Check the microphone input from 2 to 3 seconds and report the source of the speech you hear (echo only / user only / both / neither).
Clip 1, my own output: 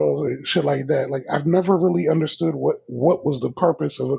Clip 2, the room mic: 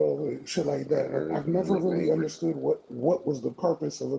both